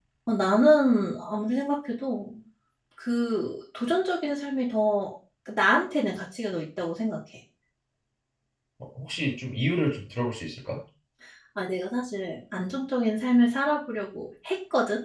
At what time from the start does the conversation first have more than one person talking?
none

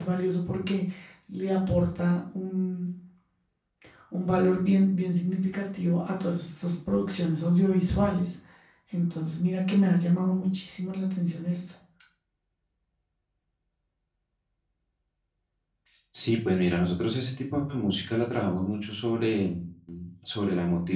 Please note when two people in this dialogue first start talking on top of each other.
none

